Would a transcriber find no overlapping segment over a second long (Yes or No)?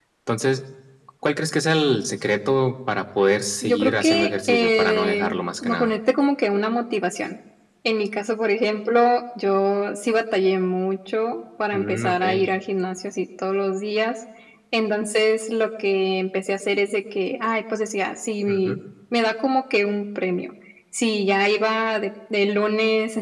No